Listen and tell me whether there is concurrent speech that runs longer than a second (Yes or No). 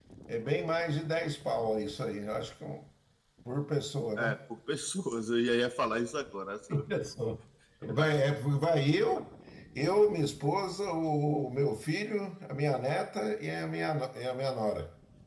No